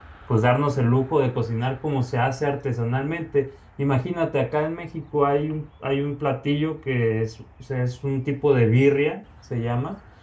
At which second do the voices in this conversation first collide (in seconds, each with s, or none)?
none